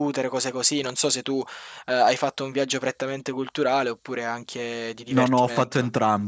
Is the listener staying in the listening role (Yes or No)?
No